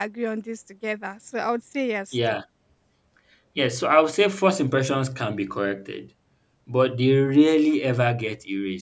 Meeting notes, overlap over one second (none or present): none